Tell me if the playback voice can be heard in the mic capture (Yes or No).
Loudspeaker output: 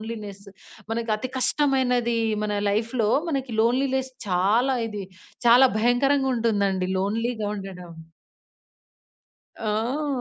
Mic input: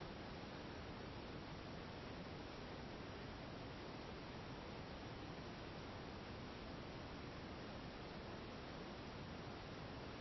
No